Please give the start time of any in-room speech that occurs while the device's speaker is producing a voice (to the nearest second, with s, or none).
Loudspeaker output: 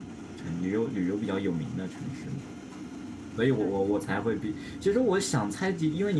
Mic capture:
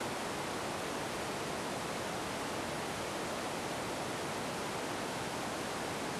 none